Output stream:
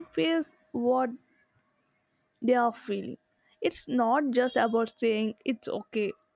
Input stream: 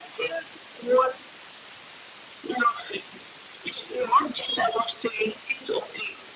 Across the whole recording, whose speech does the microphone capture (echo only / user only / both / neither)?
echo only